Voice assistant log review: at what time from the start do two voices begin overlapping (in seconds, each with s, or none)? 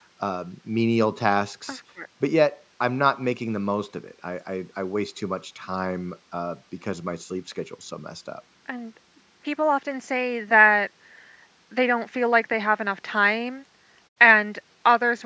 none